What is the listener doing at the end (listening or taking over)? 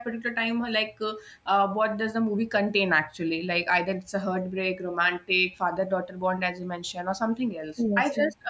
listening